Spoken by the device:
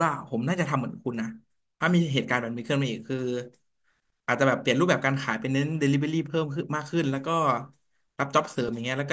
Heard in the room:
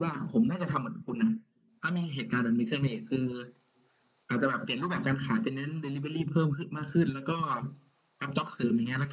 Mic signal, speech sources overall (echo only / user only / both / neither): echo only